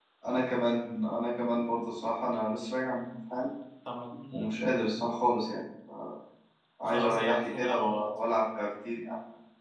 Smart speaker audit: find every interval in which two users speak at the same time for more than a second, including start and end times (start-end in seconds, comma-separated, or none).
6.8-8.1